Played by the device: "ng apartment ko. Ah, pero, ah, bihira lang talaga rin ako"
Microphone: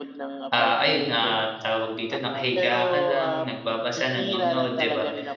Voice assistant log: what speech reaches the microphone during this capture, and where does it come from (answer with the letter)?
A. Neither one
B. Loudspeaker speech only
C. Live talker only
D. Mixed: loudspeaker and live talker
D